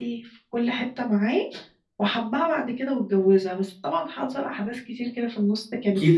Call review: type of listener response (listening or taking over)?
taking over